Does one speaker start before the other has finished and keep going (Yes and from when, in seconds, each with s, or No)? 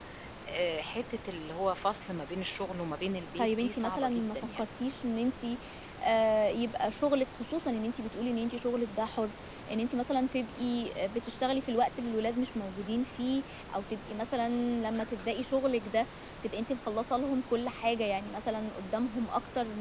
Yes, from 3.4 s